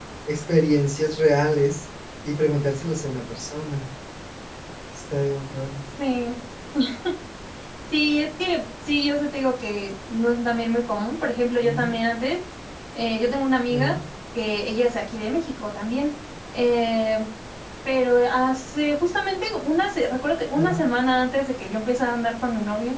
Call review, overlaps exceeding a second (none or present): none